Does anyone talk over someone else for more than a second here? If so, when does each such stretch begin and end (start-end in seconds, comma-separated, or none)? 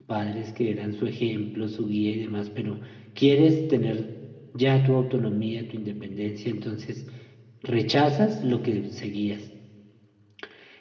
none